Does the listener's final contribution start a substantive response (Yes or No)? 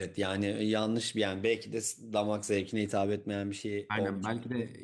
Yes